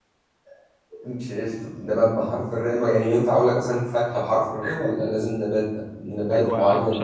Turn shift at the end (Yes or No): Yes